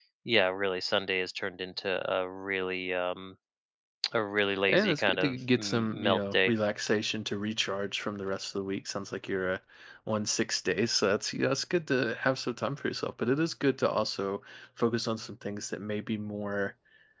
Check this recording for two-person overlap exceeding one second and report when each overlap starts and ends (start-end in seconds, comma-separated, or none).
4.7-6.5